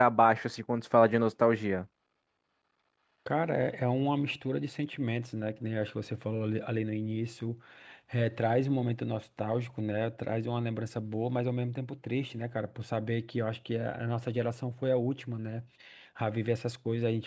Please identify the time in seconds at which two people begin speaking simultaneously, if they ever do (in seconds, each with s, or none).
none